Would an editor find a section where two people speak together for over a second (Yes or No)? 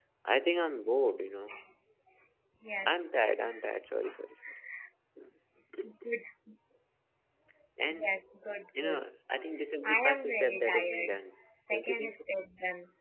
Yes